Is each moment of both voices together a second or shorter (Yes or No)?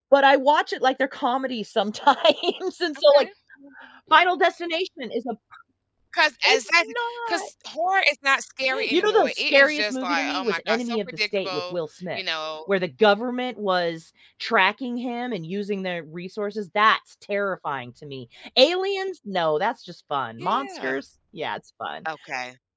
No